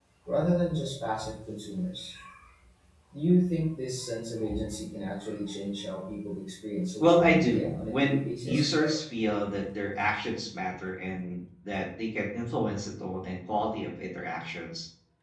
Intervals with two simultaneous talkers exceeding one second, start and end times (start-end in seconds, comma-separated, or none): 7.0-8.8